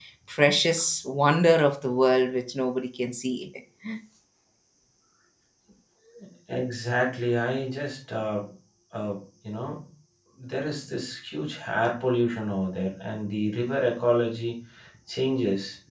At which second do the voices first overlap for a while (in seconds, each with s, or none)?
none